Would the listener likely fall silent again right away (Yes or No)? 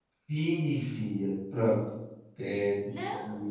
Yes